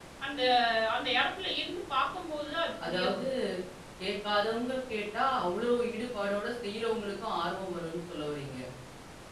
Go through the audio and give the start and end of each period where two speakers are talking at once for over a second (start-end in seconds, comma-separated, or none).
none